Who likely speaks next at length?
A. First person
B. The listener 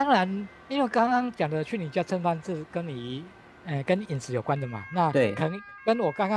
A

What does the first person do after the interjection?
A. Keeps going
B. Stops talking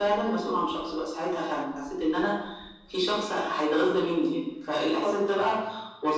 A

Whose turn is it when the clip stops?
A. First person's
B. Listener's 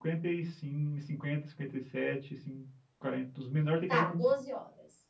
B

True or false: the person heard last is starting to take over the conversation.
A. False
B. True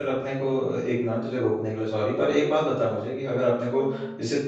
A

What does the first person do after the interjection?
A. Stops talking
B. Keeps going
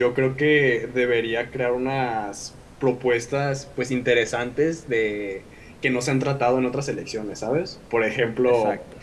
B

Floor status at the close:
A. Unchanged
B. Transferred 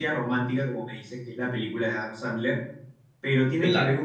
A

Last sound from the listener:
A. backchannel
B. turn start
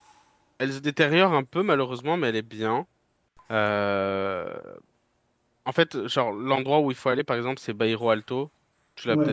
B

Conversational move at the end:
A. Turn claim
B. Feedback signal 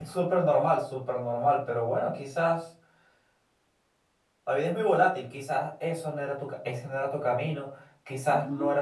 B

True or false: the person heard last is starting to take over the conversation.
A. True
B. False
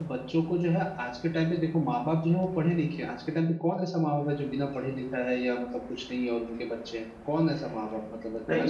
A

